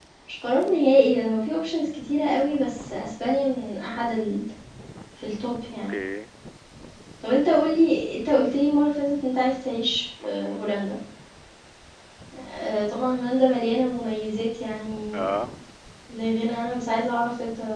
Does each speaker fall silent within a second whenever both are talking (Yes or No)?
Yes